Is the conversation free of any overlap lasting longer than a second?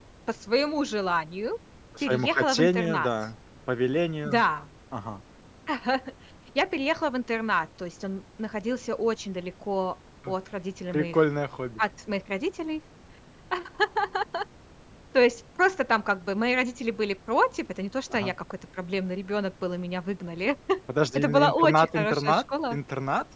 No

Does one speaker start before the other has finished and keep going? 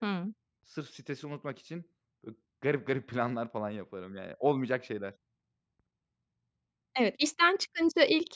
No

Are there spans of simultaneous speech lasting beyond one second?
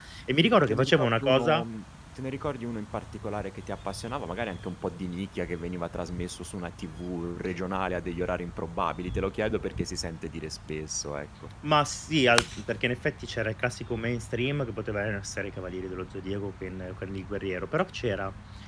Yes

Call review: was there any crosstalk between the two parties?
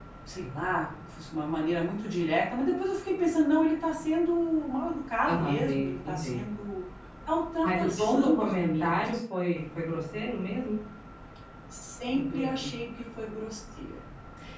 Yes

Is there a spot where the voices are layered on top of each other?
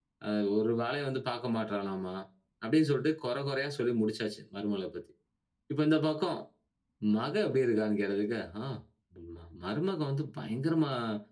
No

